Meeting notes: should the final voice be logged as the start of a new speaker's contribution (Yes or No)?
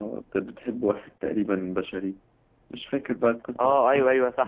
Yes